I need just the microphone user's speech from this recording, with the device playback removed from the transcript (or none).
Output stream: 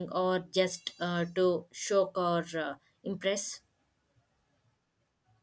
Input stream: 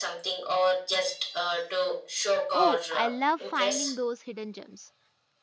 Oh, I love finding those hidden gems.